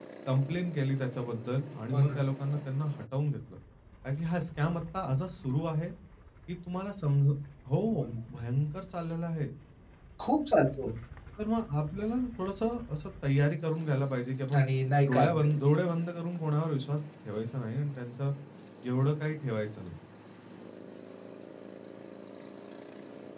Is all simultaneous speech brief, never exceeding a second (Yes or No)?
Yes